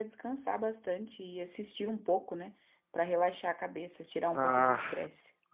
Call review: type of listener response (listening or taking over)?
taking over